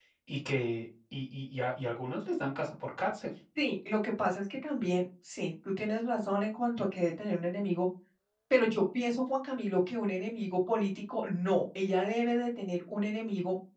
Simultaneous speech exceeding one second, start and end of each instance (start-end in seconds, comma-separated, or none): none